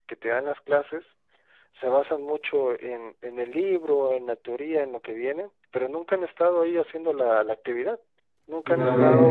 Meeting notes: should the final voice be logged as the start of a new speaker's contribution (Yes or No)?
No